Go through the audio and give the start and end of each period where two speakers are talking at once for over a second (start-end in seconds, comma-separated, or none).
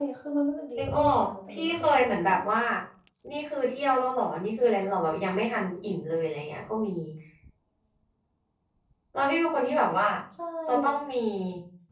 0.8-2.5